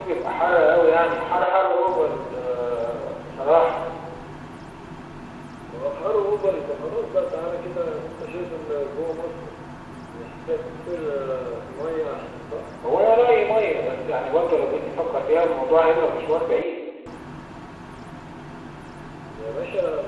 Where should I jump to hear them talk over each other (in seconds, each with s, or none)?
none